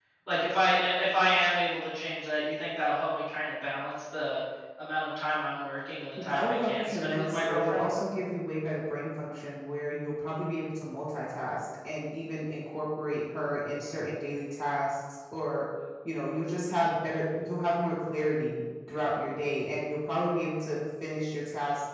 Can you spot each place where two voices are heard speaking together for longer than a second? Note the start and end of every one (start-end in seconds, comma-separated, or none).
6.2-7.8